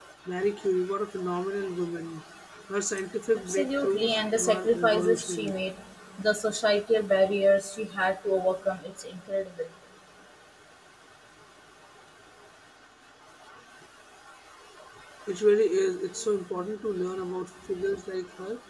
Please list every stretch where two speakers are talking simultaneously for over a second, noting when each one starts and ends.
3.5-5.5

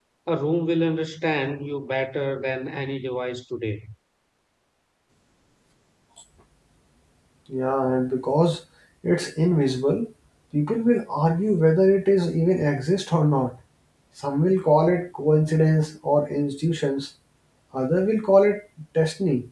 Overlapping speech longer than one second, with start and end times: none

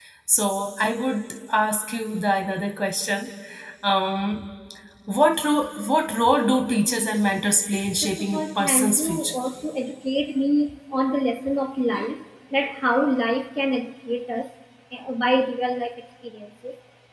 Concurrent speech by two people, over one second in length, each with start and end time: 8.0-9.3

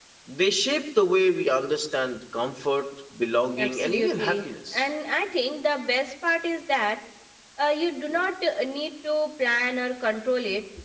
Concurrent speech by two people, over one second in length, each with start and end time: 3.6-4.9

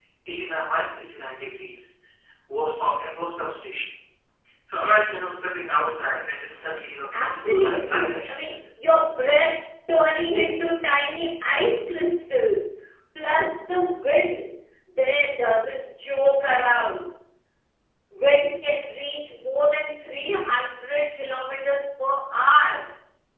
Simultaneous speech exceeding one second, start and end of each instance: 7.1-8.5

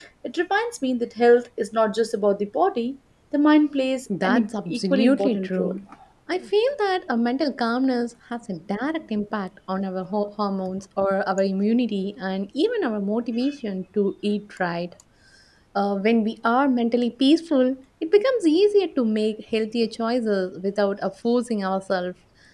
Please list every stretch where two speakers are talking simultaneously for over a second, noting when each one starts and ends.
4.2-5.8

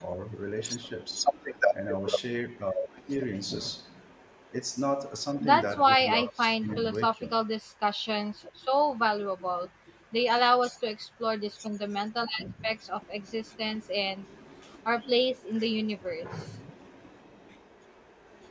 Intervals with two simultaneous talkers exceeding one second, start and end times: 5.4-7.4

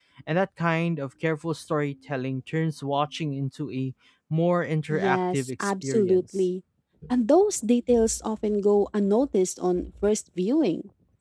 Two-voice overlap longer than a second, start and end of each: 4.9-6.2

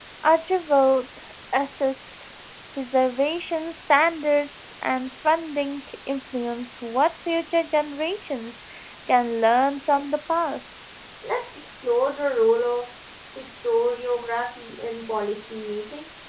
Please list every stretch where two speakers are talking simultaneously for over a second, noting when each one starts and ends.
none

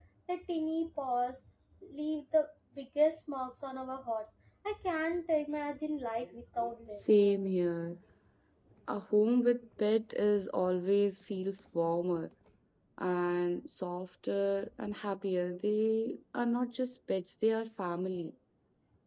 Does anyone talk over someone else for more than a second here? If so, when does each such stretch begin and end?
none

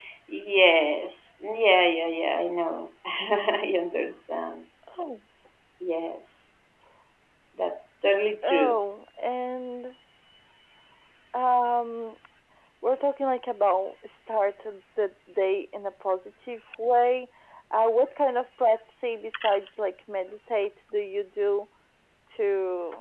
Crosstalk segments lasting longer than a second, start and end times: none

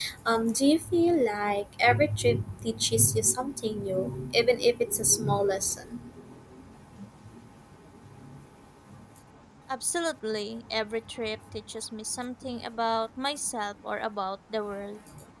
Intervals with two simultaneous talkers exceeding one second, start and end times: none

